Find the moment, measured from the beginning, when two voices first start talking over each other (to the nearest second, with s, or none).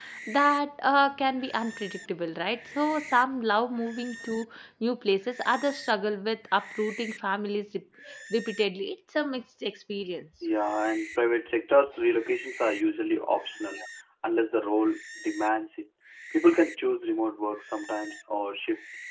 none